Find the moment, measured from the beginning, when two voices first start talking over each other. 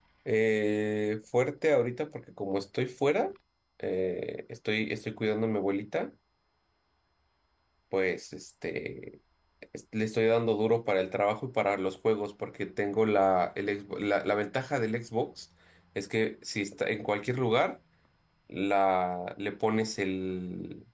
none

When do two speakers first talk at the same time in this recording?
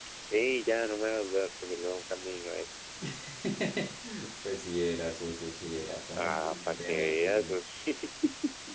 6.2 s

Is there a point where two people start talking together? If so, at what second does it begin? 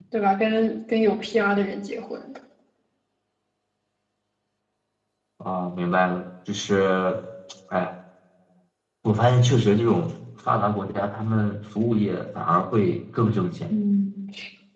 none

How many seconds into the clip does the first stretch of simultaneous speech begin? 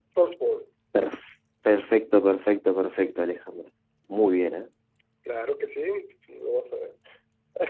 none

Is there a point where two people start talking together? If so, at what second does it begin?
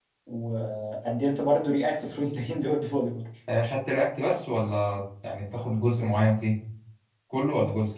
none

